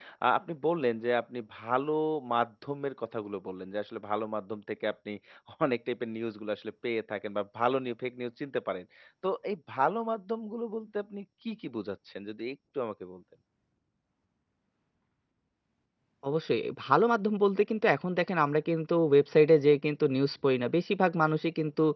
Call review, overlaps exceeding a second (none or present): none